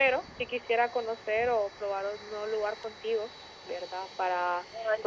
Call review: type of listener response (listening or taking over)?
listening